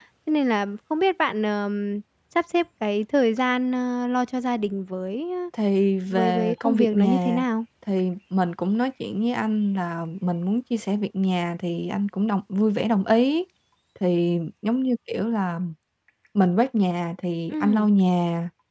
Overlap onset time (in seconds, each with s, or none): 6.1 s